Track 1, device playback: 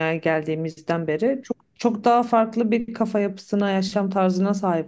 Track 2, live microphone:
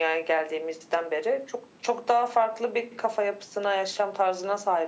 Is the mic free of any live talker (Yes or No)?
Yes